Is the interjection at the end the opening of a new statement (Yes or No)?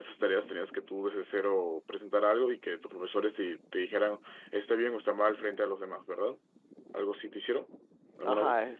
Yes